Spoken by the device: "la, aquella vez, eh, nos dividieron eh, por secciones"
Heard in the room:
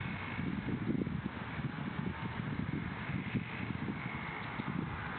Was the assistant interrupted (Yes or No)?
No